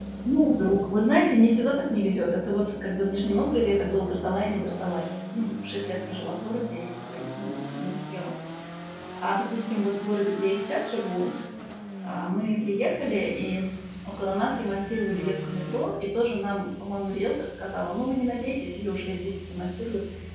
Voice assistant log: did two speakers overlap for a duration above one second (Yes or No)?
No